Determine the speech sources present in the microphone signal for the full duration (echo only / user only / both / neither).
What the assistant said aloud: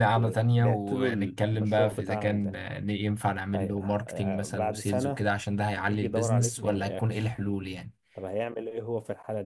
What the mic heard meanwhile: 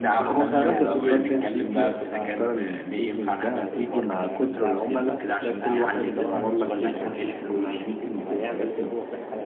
both